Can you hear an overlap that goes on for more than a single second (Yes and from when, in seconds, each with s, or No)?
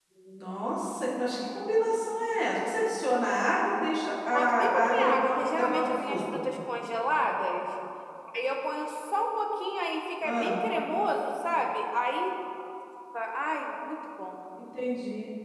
Yes, from 4.3 s